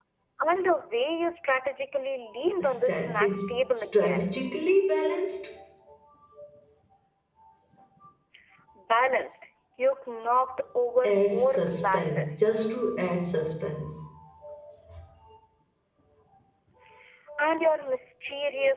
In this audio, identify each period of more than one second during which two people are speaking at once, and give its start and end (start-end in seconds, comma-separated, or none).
2.6-4.3, 11.0-12.4